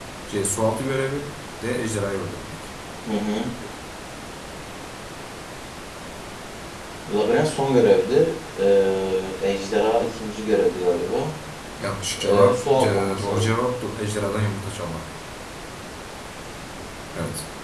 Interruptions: present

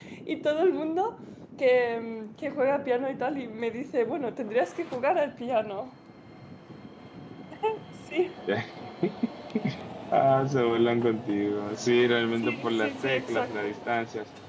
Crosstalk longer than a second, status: present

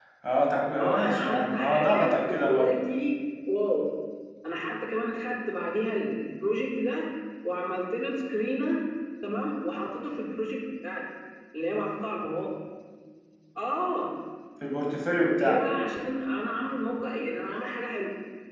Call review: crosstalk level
present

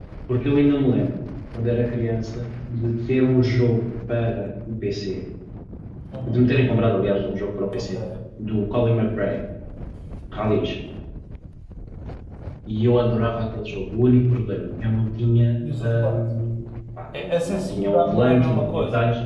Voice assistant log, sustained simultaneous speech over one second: present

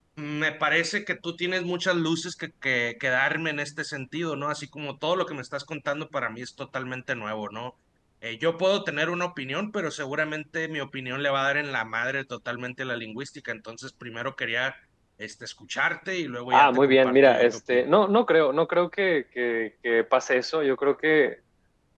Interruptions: present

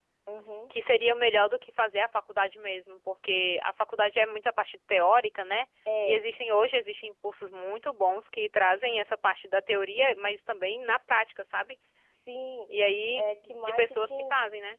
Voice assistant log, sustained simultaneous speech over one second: present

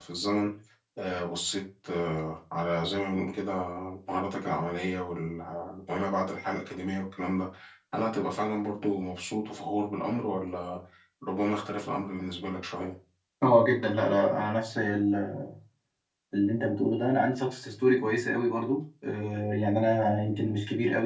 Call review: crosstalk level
none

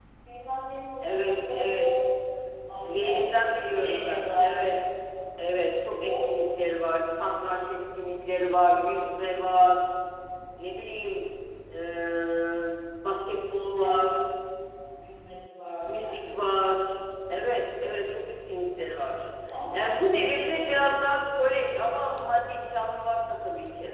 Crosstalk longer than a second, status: present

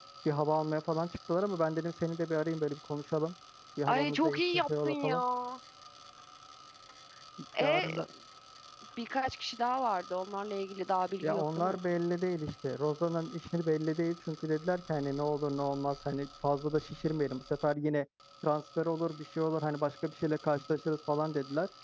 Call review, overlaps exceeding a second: present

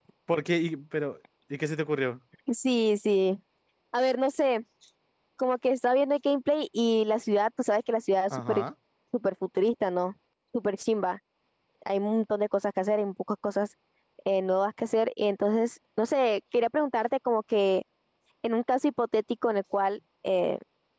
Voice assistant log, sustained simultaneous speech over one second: none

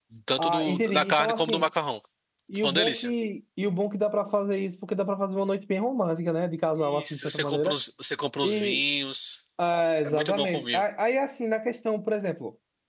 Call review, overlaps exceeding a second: present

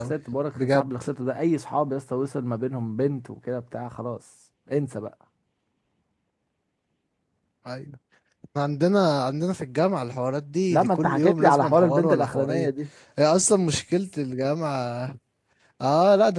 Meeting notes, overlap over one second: present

